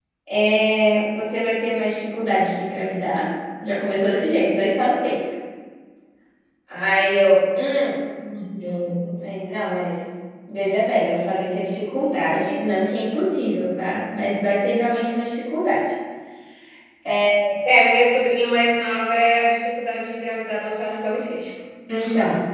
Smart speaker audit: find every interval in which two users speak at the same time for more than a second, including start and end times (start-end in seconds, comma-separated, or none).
none